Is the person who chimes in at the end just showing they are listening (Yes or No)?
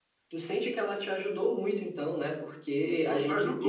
No